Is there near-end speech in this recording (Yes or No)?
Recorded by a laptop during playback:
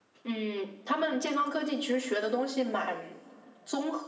No